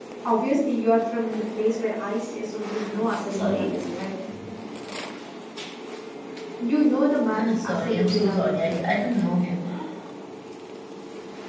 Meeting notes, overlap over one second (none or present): present